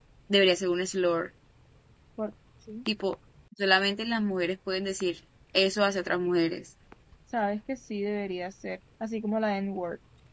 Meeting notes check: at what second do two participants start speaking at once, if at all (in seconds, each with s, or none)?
none